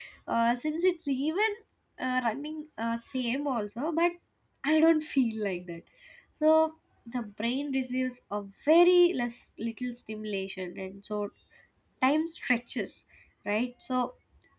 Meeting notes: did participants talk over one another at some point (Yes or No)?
No